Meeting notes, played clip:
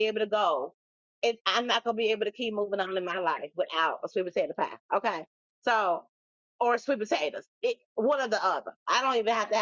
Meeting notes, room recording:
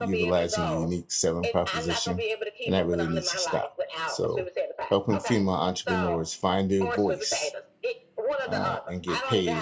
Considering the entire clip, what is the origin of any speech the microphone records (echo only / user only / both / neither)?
both